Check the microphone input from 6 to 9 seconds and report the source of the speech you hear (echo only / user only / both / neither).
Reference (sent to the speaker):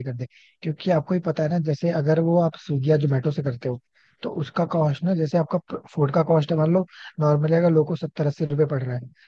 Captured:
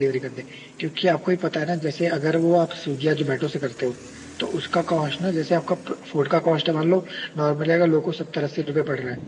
echo only